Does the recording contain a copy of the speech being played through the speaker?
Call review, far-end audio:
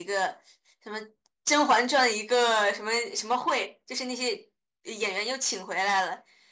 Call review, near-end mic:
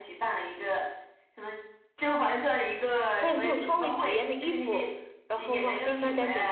Yes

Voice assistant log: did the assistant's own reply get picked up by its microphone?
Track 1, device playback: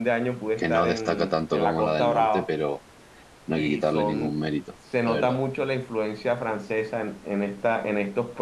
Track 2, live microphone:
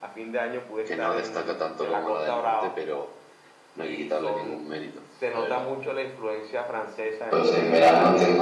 Yes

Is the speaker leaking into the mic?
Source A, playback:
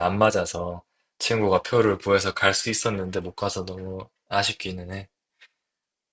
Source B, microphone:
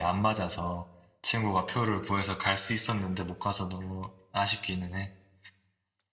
Yes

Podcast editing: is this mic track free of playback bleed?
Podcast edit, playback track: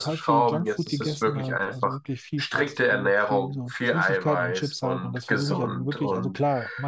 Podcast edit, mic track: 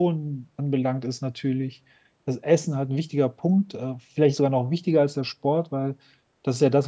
Yes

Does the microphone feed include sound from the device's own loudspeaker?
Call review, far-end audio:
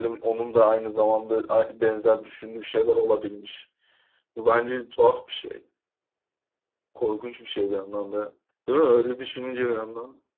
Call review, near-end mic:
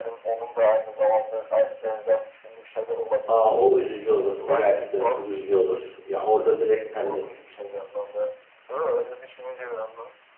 Yes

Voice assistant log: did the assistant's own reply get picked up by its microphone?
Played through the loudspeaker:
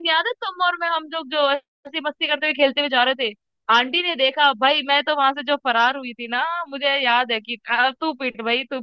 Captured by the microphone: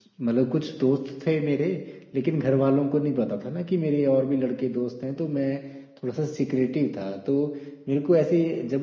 No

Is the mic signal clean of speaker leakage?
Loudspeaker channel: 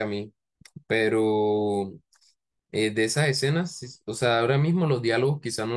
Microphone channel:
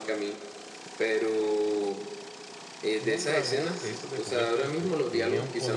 No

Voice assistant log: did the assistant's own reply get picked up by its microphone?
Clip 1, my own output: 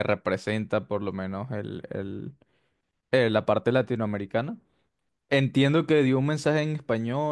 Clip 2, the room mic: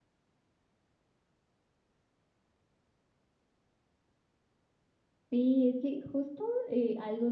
No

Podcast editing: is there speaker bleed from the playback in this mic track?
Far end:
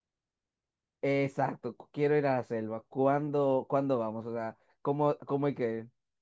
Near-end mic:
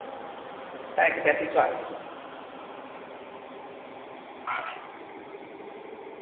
No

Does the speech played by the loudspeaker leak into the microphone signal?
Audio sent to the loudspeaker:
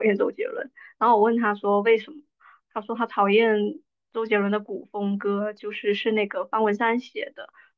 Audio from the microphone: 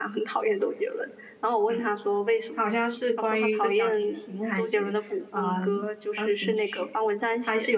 Yes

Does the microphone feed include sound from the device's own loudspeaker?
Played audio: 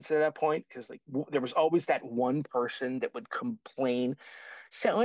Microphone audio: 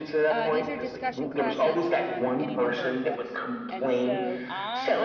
Yes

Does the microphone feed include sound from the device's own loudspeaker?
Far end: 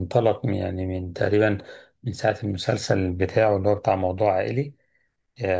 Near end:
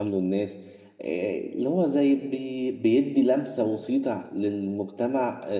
No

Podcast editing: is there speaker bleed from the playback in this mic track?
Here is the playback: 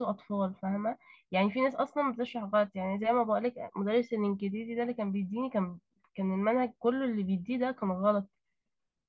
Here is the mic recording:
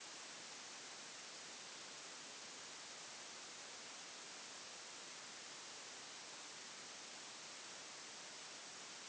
No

